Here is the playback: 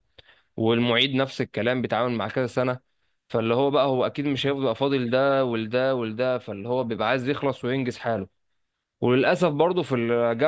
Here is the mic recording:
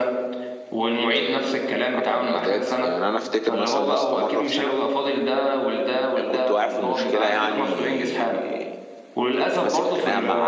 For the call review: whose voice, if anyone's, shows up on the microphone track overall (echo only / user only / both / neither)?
both